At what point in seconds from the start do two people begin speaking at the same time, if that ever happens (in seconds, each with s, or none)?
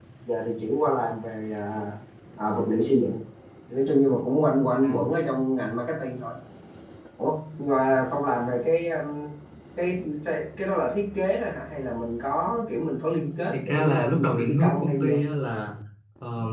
13.5 s